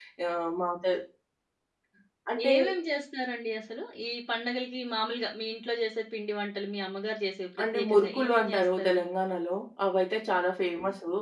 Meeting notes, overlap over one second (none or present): present